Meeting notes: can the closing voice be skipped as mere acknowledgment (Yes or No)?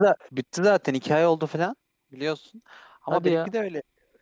Yes